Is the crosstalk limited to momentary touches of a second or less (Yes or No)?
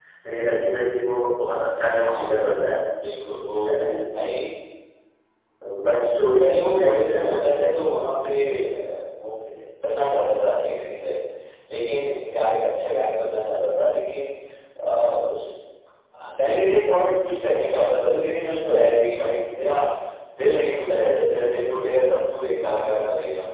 No